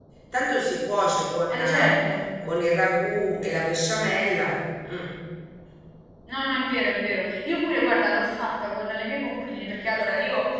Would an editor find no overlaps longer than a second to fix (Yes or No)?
Yes